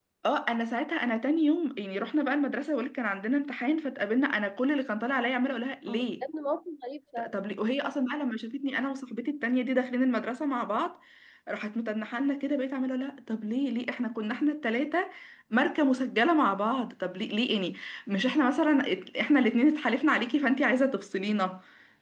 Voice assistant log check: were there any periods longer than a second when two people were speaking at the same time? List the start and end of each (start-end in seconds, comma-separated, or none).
none